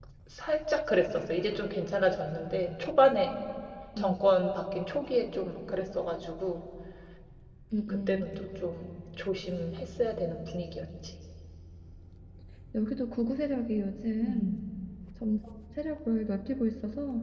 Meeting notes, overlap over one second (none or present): none